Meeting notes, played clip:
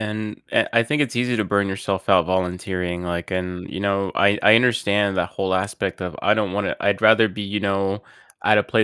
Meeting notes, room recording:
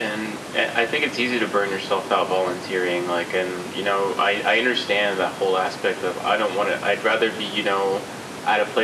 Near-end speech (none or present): none